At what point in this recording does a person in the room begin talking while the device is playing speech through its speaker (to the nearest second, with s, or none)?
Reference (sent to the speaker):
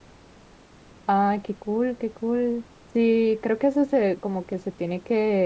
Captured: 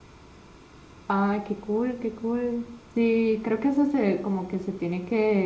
none